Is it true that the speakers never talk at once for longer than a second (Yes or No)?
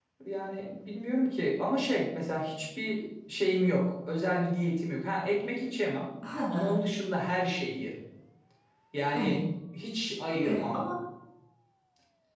Yes